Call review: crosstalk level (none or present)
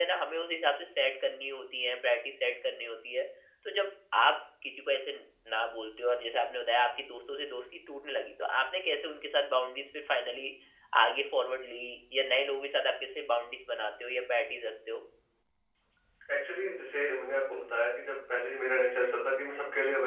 none